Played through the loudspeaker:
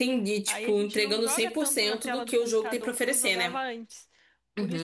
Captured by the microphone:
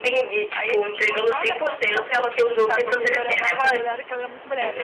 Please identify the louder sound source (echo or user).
echo